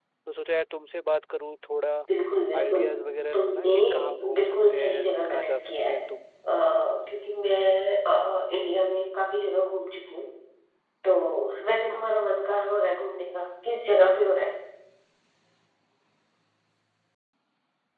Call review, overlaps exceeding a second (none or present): present